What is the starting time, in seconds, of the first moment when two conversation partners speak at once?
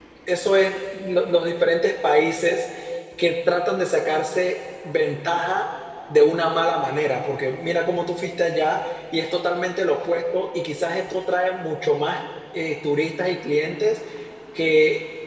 none

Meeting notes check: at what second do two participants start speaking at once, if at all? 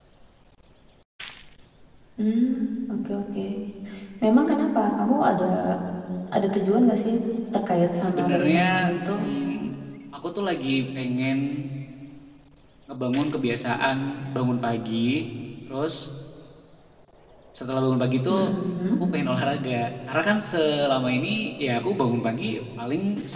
8.0 s

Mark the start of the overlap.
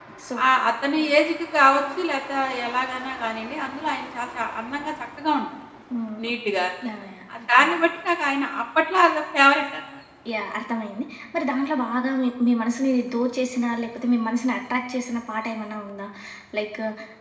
none

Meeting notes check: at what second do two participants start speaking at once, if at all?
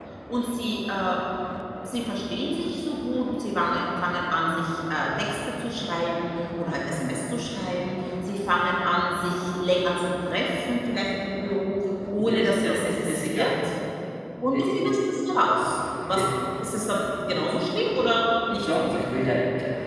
12.2 s

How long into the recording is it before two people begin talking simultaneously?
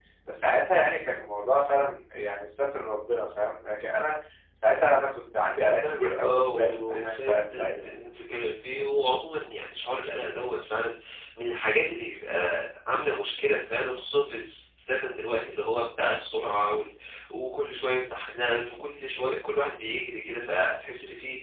5.8 s

